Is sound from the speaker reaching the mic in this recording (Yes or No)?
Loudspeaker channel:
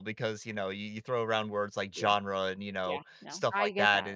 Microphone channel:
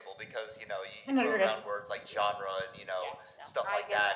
Yes